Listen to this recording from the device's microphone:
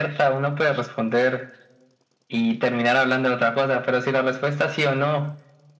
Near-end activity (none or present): none